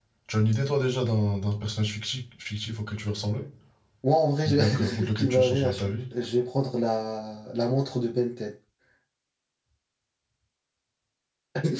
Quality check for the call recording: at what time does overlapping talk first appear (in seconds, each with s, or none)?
4.5 s